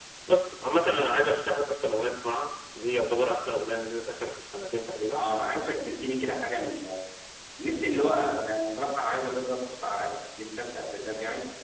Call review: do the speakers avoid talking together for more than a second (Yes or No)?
Yes